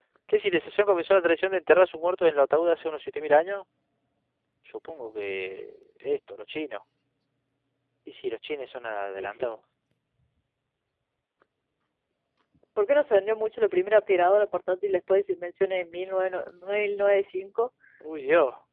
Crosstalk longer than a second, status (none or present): none